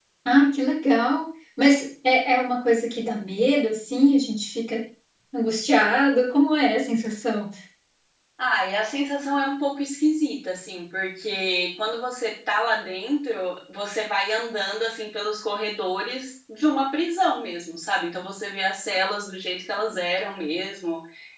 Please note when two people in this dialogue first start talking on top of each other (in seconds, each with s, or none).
none